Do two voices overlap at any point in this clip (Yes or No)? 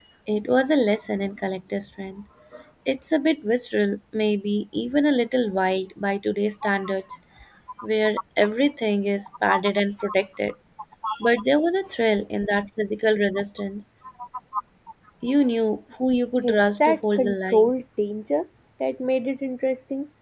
Yes